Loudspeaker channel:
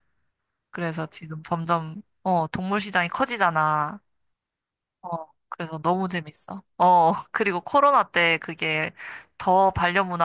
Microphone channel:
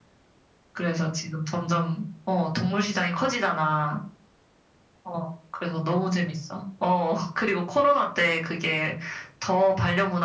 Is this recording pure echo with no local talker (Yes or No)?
Yes